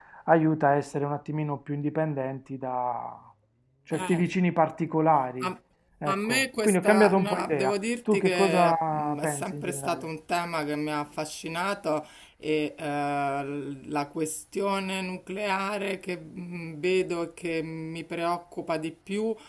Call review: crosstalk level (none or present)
present